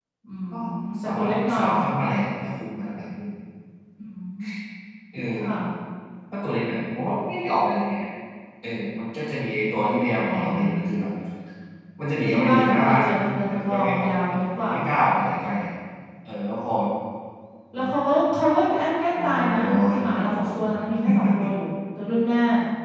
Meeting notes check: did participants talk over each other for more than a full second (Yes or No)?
Yes